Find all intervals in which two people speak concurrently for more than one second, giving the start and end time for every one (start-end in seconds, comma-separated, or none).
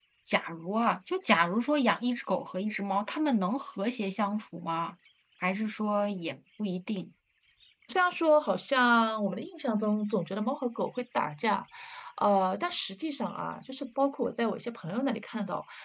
none